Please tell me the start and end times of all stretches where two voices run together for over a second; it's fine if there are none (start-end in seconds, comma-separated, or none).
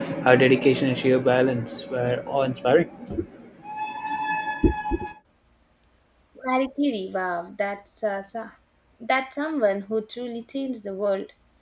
none